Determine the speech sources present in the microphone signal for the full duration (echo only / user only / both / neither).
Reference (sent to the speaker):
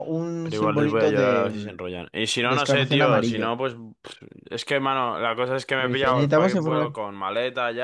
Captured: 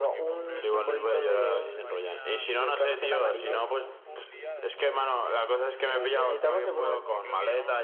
both